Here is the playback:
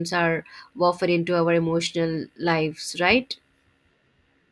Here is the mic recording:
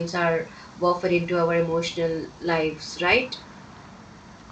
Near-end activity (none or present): none